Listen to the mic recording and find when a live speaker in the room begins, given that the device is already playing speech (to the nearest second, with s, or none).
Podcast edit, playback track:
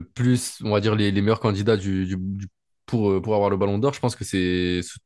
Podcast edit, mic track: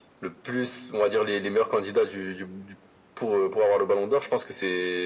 none